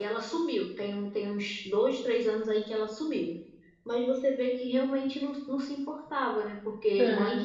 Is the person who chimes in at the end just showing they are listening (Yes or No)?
Yes